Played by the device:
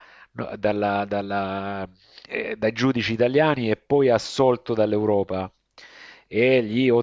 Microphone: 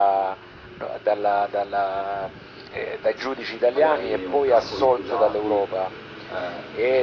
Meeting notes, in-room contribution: present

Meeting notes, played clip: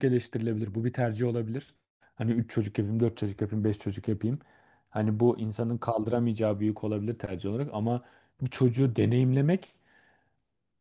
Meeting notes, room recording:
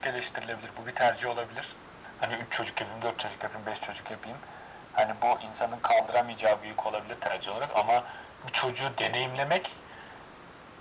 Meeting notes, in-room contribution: none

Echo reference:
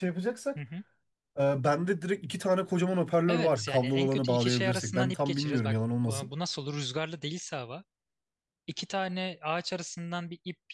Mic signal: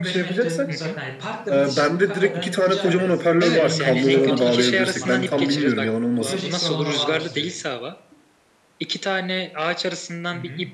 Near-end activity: present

